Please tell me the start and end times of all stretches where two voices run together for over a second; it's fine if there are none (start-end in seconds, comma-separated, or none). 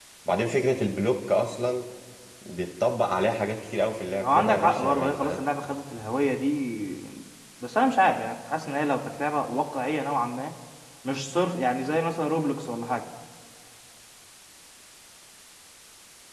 4.2-5.4